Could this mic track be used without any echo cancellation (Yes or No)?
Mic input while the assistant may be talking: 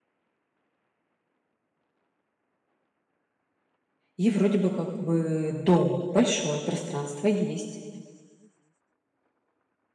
Yes